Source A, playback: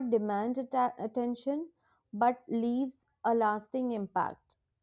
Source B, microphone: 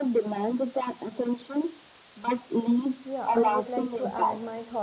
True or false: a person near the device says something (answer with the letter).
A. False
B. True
B